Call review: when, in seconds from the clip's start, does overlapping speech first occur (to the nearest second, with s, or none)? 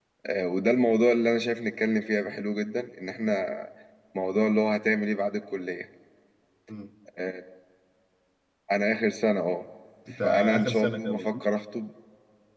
10 s